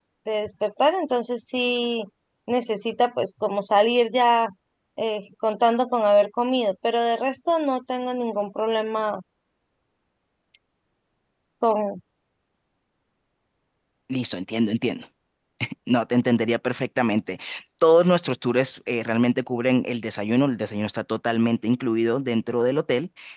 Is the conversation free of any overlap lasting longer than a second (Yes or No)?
Yes